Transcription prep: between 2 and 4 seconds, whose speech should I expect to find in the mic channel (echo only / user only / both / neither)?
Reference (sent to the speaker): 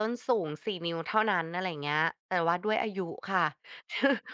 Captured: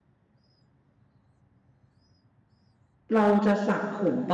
user only